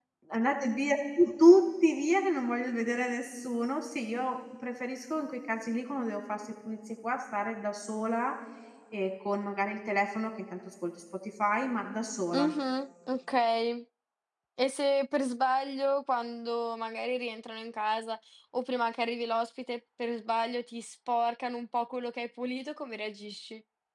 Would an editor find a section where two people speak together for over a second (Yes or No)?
No